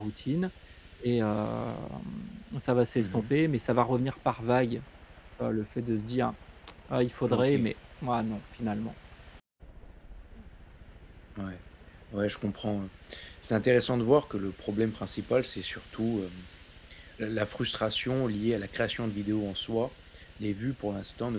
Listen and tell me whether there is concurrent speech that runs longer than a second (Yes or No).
No